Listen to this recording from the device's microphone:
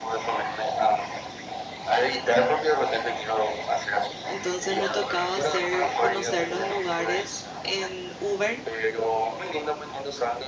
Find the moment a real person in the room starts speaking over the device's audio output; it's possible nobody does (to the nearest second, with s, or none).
4 s